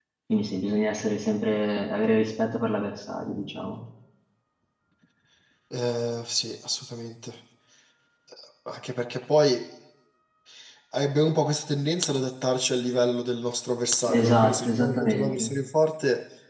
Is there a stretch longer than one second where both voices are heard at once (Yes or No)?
Yes